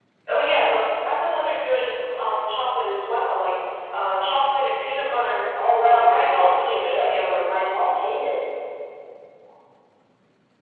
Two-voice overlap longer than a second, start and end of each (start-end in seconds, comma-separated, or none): 5.8-7.5